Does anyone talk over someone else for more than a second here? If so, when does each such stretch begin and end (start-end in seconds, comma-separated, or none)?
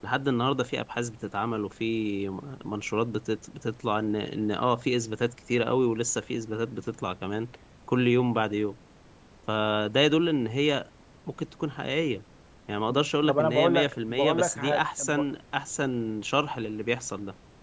13.3-15.2